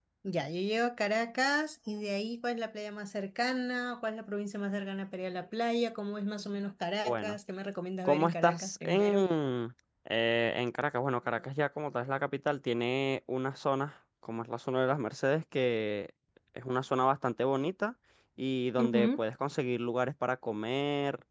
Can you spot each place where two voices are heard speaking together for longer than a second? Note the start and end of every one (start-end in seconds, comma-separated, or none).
8.1-9.3